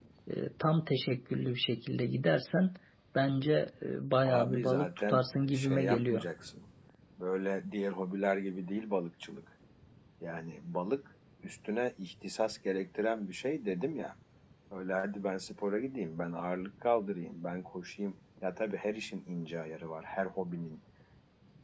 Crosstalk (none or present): present